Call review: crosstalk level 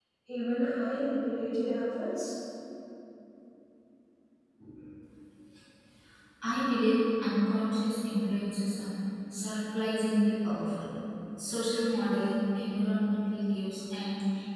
none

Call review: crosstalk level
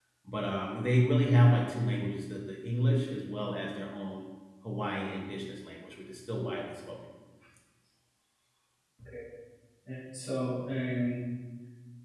none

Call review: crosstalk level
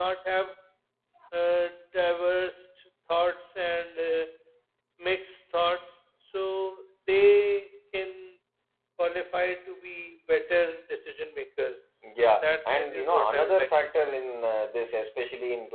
present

